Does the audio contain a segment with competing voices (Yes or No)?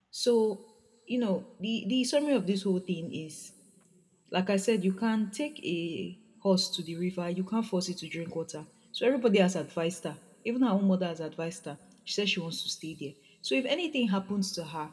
No